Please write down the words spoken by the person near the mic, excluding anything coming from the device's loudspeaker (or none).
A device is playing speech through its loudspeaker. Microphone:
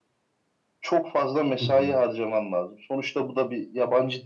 Hı hı,